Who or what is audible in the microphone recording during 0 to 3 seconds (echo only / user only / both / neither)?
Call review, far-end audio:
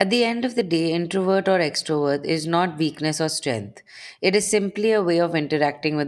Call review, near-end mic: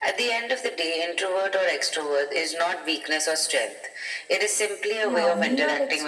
echo only